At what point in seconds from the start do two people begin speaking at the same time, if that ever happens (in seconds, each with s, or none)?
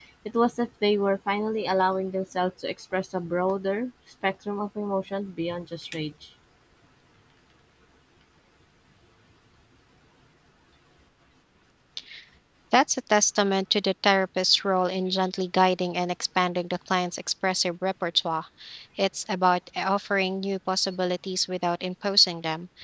none